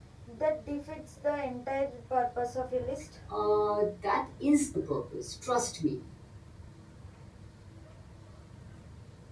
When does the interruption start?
none

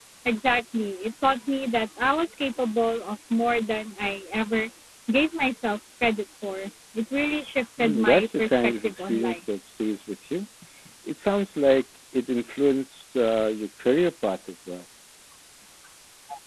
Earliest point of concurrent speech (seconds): 7.8 s

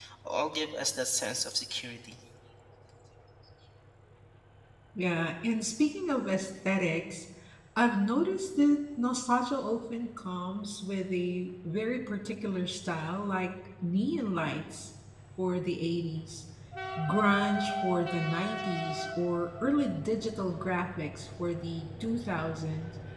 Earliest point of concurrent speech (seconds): none

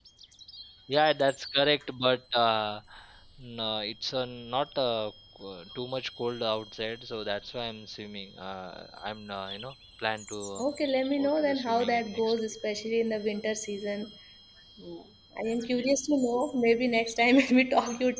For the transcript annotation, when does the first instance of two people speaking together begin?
11.2 s

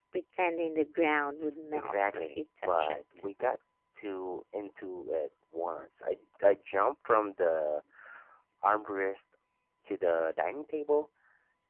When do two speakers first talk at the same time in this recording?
1.7 s

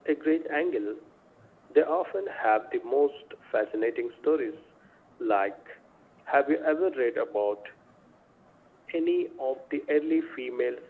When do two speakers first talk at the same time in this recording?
none

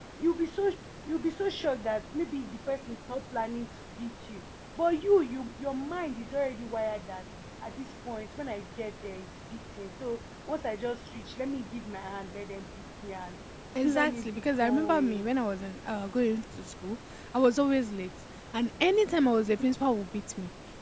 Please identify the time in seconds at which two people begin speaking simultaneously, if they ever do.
13.8 s

